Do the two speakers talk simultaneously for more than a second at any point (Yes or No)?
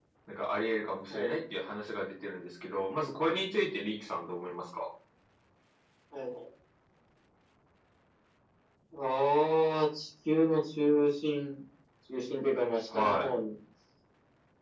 No